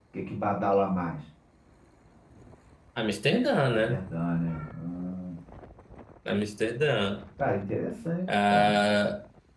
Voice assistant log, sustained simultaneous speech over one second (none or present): none